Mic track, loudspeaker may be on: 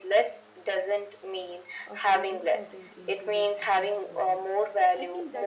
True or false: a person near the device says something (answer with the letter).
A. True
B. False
A